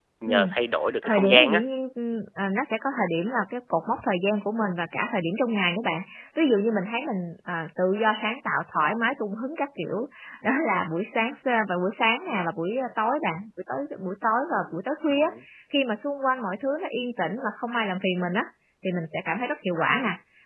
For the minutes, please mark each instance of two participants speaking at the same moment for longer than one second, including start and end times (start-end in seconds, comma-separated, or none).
none